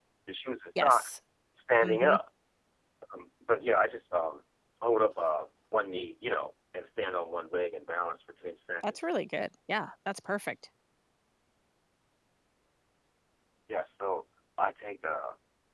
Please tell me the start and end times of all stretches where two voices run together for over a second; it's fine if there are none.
none

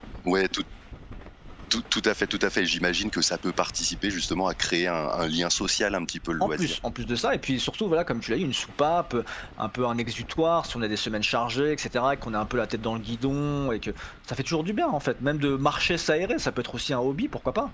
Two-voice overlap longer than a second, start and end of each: none

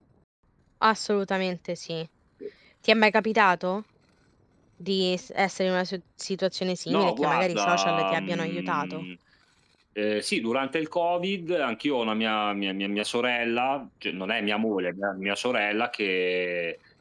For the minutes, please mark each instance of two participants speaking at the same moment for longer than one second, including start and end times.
6.9-9.1

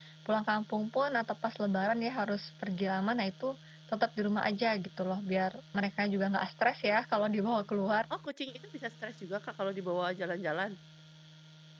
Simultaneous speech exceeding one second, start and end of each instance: none

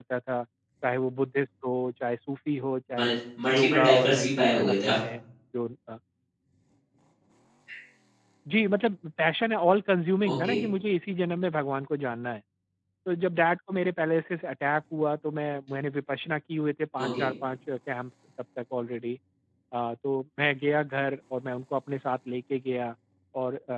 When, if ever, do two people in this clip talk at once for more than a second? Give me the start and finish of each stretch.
3.5-5.0

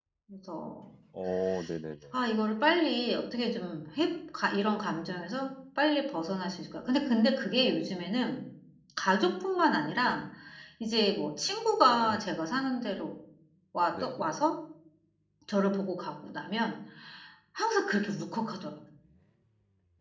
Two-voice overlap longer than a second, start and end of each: none

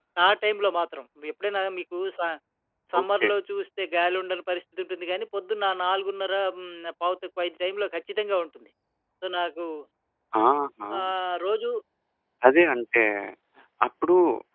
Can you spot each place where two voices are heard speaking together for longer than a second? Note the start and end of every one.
none

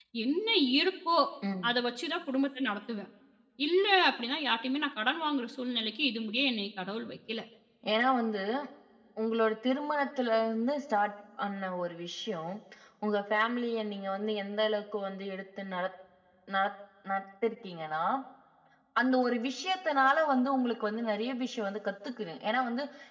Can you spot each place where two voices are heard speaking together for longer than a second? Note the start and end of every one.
none

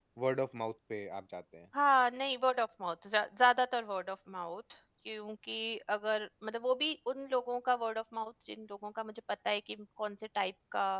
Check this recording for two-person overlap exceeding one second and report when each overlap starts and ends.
none

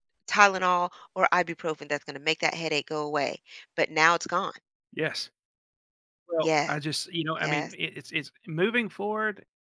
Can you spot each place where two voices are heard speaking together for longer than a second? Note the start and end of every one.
none

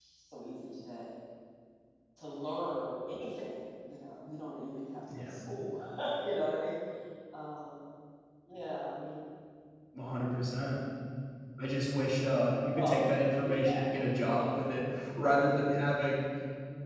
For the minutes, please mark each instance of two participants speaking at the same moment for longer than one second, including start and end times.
13.4-15.3

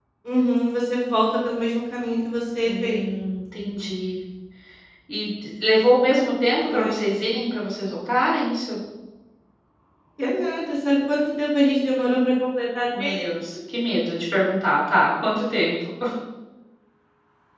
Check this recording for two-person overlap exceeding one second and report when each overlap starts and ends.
none

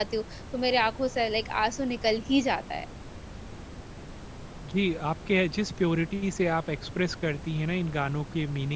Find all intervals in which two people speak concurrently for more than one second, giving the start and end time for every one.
none

